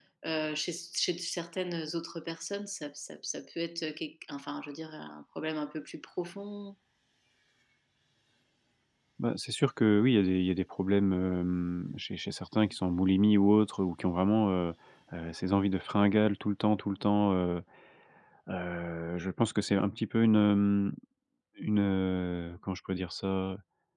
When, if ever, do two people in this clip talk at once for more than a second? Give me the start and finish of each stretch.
none

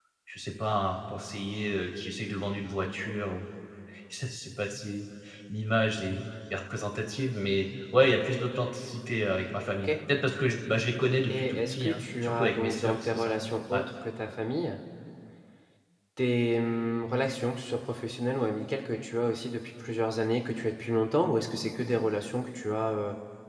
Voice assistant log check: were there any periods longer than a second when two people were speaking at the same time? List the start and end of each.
11.3-13.8

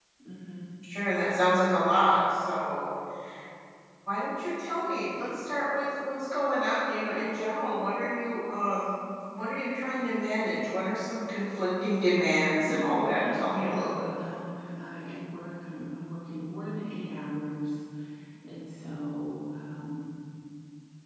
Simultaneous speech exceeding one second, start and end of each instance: 12.6-14.0

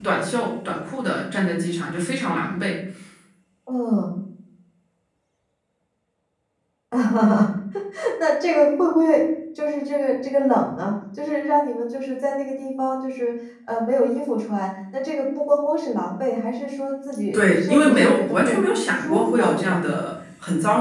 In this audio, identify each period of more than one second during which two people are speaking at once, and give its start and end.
17.3-19.8

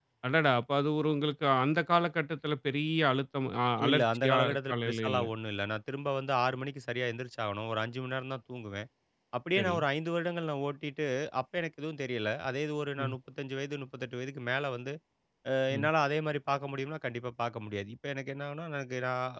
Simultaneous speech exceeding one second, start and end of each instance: 3.9-5.2

